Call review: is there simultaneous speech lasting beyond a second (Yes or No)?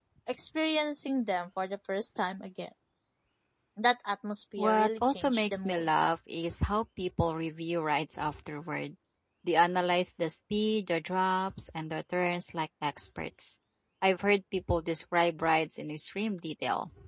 Yes